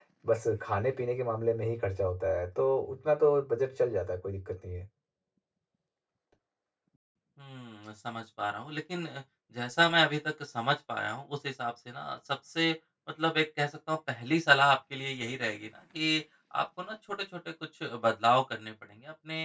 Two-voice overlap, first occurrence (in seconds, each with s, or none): none